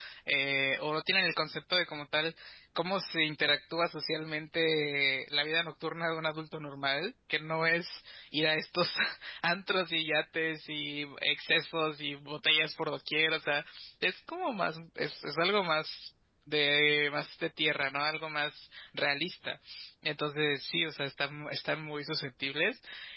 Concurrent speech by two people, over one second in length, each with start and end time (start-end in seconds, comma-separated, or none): none